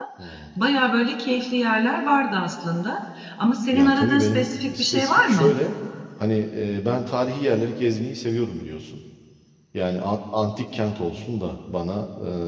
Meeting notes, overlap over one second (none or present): present